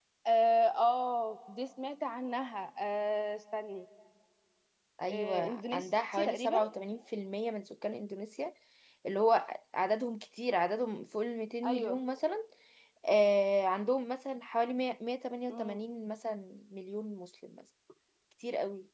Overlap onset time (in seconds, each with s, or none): 5.1 s